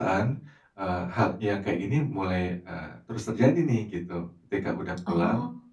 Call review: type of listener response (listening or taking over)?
listening